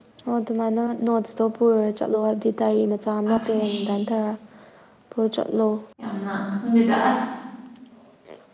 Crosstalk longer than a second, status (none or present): none